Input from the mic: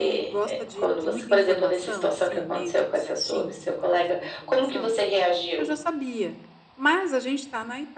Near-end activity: present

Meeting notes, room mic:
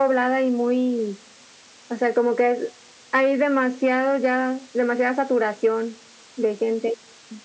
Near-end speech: none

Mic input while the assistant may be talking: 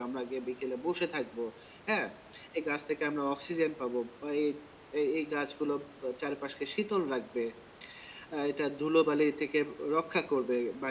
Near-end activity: none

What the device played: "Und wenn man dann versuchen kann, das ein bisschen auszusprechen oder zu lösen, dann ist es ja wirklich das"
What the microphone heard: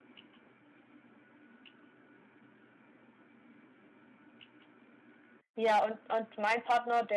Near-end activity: present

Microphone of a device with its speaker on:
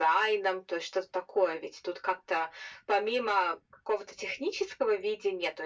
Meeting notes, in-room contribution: none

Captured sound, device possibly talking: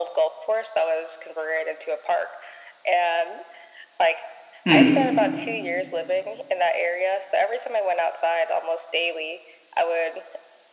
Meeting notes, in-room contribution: present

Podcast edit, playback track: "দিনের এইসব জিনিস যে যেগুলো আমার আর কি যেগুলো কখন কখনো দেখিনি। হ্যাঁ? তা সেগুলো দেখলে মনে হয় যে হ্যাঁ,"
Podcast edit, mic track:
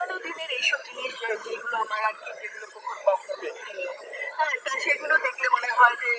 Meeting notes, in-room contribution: none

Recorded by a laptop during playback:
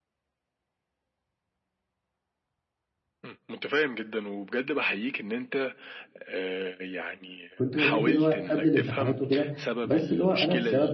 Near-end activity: present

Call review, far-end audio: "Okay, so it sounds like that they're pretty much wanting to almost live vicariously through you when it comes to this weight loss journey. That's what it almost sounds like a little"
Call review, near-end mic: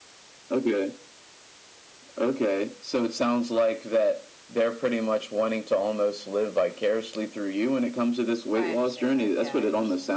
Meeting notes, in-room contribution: present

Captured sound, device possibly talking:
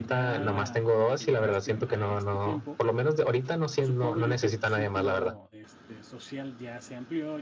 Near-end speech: present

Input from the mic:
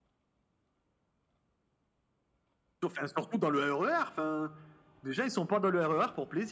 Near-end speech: none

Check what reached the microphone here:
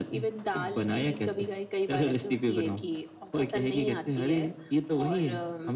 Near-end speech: none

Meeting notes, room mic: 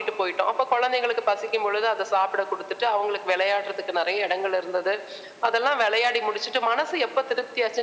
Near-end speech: none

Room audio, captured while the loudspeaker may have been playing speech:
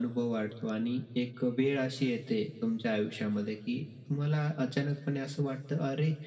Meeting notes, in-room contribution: none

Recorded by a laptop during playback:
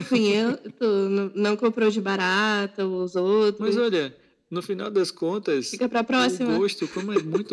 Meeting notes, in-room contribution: none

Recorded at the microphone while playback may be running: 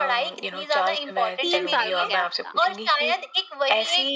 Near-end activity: present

